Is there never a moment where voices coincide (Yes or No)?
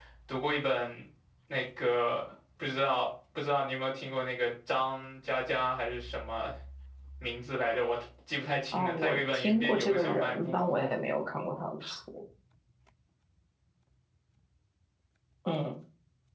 No